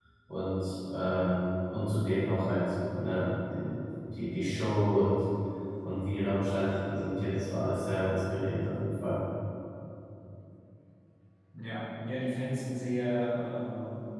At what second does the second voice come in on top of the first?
none

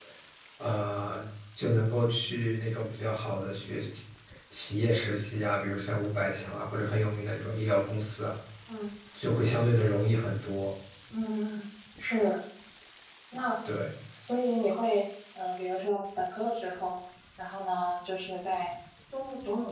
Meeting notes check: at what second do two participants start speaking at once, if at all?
none

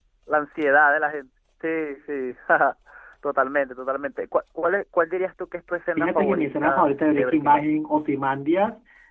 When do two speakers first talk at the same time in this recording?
6 s

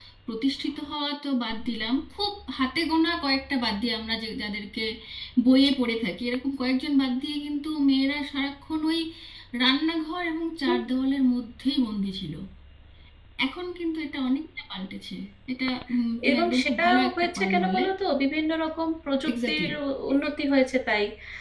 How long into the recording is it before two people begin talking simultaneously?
16 s

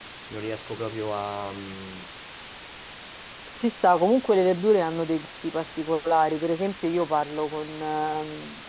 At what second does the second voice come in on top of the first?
none

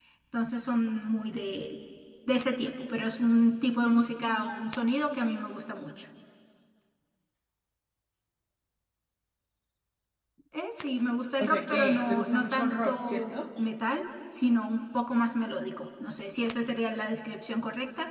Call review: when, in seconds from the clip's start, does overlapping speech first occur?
11 s

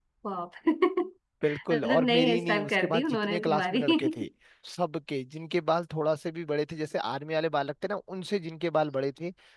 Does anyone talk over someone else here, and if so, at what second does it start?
1 s

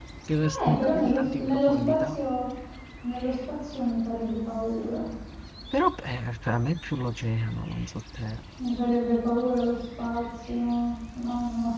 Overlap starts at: 1 s

